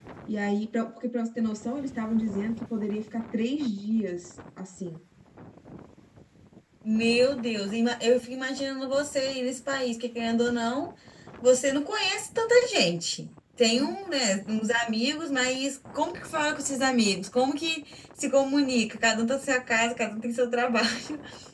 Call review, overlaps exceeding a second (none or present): none